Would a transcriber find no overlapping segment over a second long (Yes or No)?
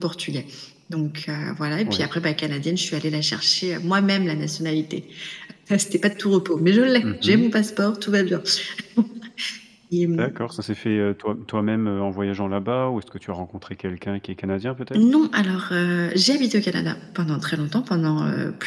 Yes